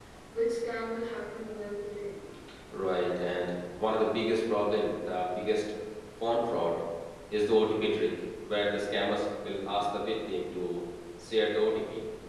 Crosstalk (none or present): none